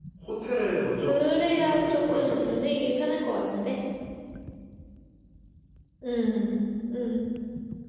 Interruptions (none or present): present